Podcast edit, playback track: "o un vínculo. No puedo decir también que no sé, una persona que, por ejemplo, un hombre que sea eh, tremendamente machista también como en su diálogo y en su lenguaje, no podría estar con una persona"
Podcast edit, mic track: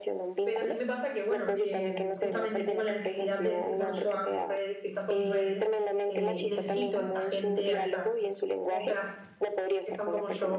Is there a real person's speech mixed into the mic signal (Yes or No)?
Yes